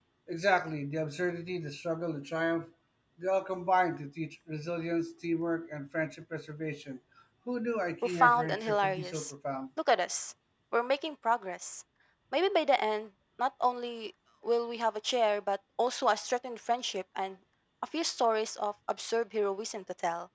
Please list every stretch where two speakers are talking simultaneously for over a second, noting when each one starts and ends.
8.0-9.3

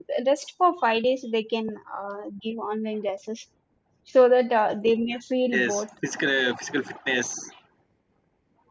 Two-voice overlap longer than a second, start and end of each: none

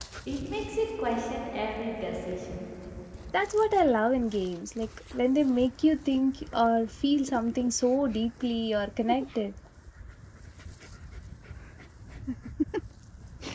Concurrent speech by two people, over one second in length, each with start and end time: none

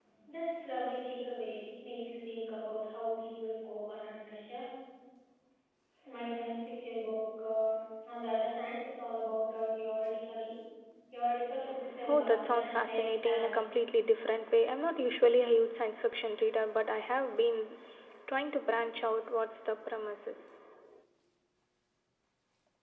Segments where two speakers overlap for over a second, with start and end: 12.1-13.5

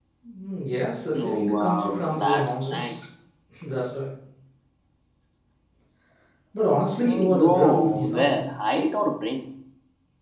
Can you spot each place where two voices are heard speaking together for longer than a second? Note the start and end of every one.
1.1-3.0, 7.0-8.5

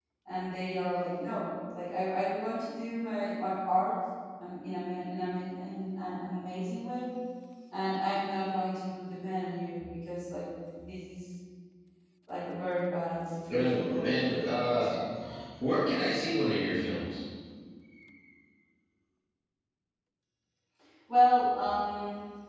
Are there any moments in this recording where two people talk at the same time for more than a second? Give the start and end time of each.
13.5-14.8

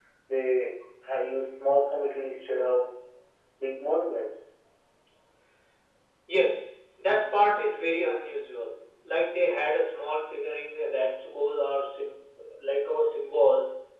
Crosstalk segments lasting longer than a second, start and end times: none

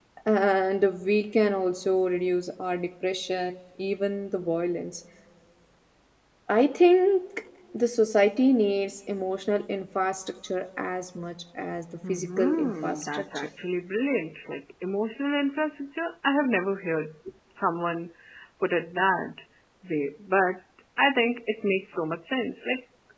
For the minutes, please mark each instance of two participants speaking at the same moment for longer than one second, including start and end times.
12.1-13.5

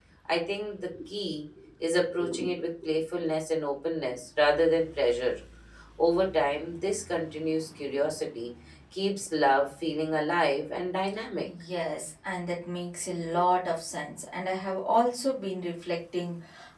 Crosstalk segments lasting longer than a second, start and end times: none

